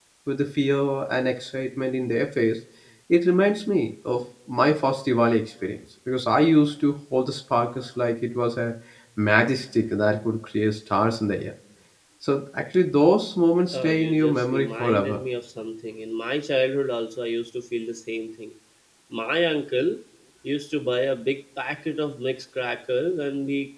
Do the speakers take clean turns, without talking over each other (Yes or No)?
No